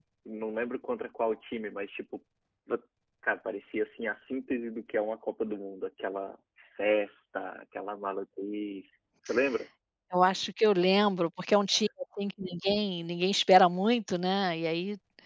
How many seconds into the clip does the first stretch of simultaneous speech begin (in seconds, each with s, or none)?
none